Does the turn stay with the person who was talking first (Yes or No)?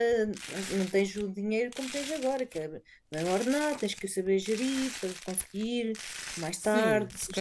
No